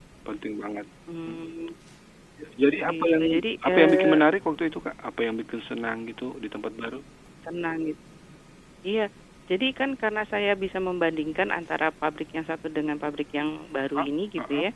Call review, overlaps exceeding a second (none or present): none